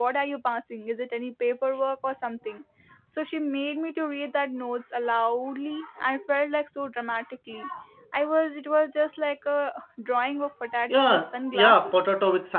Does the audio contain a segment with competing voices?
Yes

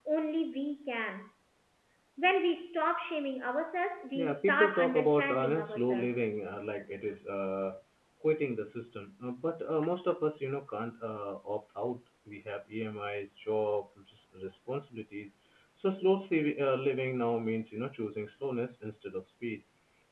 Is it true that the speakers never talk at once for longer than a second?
No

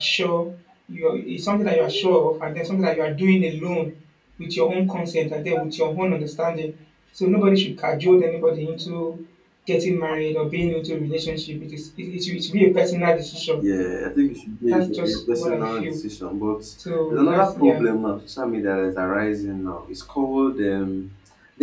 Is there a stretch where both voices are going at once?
Yes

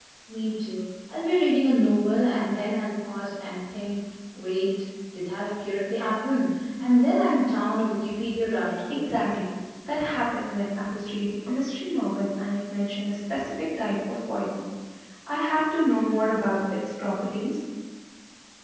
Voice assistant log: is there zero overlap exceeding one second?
Yes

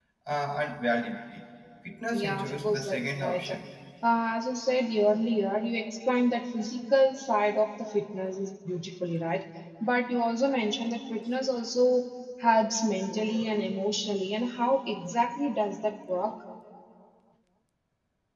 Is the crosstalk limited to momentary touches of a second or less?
No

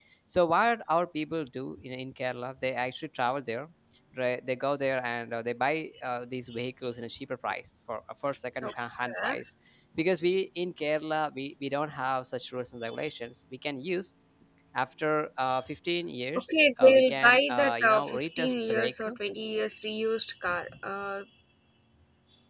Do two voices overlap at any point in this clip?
Yes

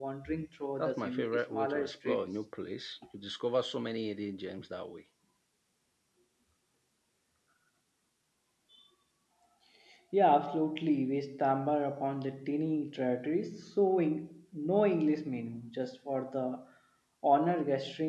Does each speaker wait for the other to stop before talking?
No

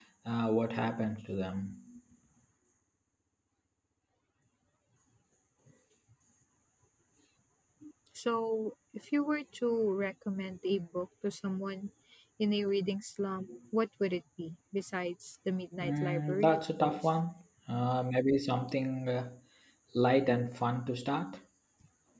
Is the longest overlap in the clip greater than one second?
Yes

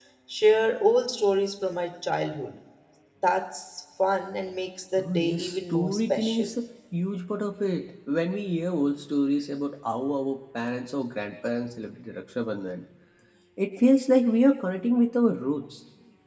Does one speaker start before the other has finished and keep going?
Yes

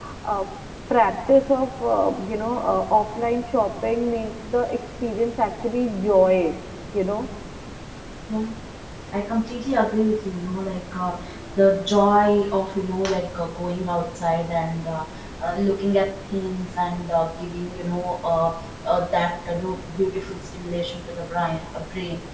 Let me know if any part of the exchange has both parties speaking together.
No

